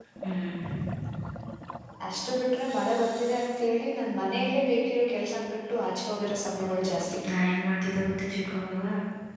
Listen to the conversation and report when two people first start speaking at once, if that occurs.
none

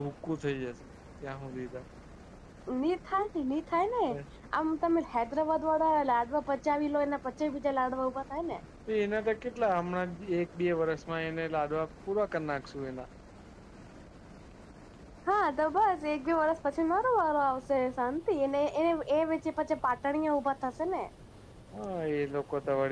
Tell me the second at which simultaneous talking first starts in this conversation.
none

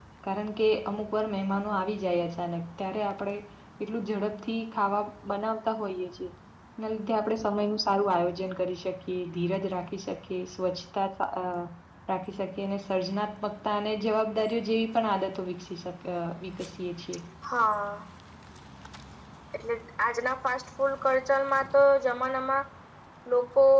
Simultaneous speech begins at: none

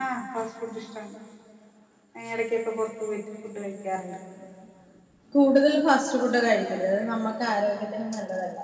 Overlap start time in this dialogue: none

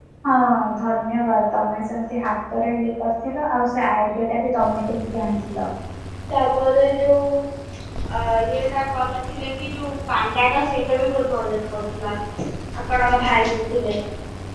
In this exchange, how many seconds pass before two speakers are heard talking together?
none

